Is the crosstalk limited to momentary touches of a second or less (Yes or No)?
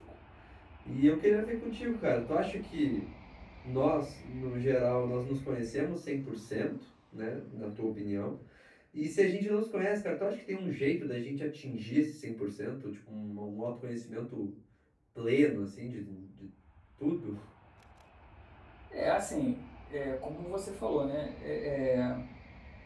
Yes